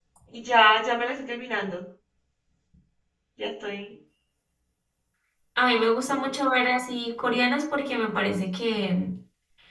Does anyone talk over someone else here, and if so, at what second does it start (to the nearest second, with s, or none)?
none